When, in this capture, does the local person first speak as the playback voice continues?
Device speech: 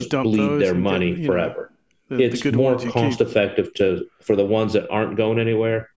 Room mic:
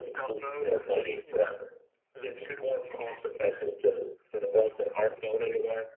none

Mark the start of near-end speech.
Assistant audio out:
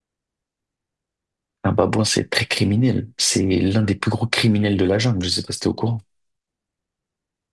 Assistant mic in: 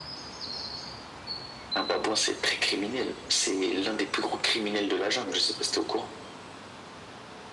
none

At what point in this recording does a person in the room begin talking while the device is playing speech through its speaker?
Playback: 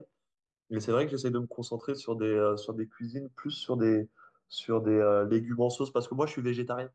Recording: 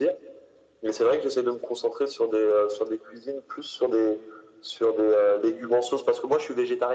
none

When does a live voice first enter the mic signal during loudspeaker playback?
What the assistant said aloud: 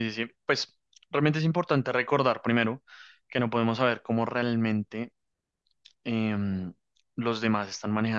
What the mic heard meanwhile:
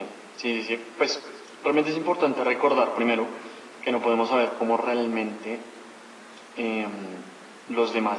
none

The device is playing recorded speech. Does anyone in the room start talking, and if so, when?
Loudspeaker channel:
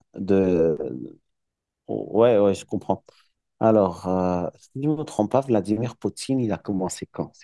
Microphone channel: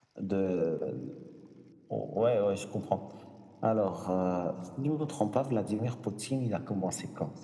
none

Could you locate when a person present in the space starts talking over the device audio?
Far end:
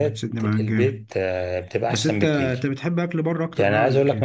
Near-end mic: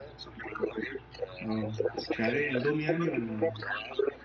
1.4 s

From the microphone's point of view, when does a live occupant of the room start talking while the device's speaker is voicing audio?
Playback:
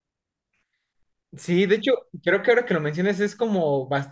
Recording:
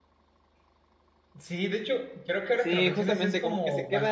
2.5 s

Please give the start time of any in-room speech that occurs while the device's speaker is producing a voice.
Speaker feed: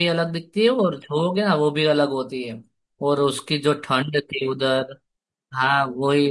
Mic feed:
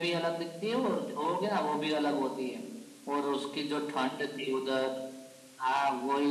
none

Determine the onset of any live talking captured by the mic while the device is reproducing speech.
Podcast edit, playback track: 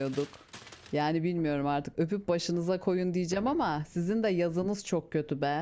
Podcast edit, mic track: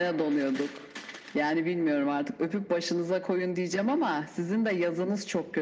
none

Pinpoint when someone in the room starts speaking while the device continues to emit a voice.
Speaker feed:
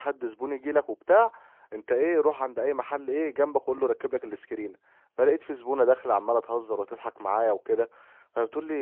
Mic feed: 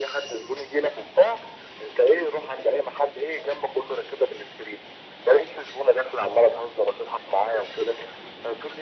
none

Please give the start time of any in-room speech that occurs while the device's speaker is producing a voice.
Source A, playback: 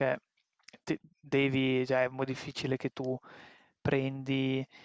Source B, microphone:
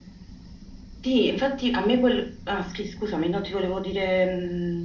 1.0 s

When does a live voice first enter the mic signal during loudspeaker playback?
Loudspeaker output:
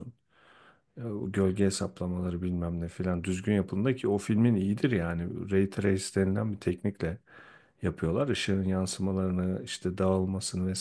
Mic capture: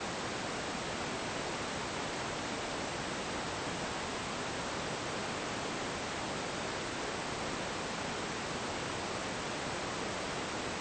none

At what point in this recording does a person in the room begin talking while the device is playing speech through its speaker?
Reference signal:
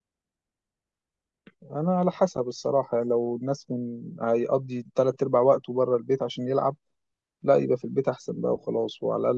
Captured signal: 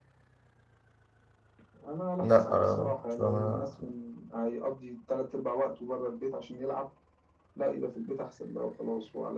2.2 s

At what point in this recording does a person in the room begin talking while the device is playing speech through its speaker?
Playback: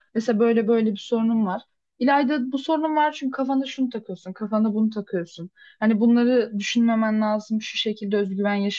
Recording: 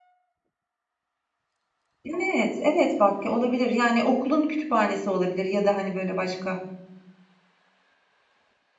2.0 s

